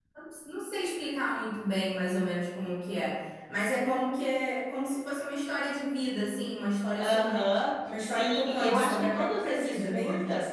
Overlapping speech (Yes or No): Yes